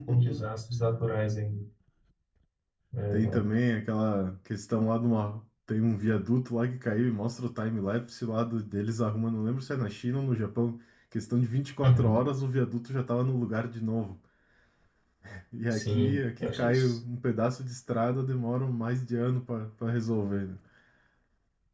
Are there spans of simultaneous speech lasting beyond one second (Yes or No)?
Yes